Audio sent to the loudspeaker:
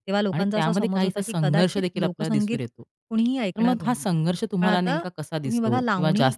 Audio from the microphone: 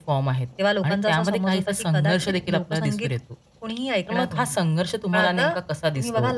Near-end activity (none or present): none